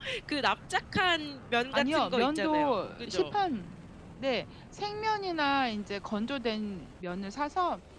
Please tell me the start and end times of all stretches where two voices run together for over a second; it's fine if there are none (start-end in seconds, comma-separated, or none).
1.7-3.3